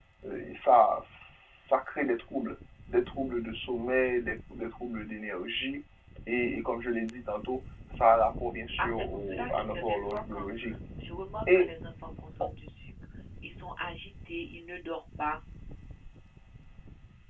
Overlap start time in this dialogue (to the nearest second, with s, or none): 9 s